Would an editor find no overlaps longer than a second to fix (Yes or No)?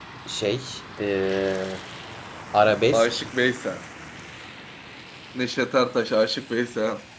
Yes